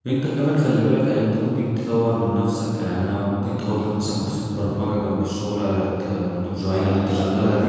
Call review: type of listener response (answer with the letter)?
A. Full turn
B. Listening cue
A